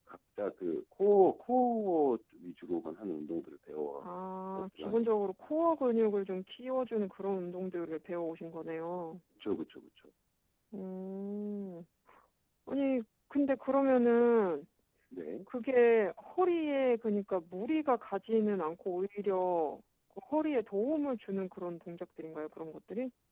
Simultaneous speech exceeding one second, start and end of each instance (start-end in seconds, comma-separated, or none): none